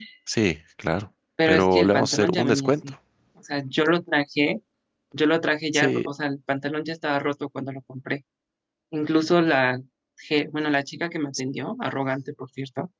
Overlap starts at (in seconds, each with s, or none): 1.5 s